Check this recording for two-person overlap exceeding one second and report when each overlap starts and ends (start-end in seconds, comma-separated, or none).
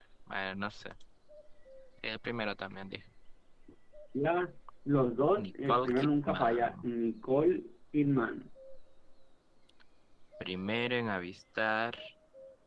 5.4-6.7